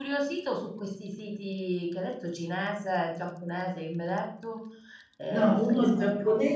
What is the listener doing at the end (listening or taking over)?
taking over